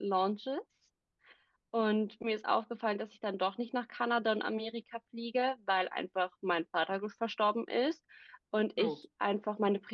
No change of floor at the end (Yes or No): Yes